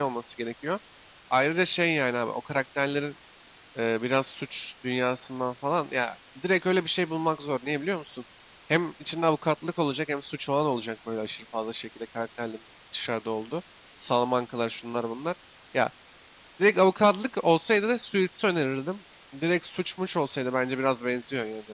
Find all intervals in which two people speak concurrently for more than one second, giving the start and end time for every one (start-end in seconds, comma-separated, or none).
none